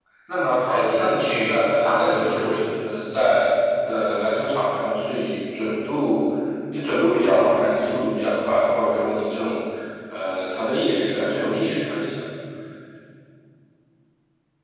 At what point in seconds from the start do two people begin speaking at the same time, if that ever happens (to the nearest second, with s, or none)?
1 s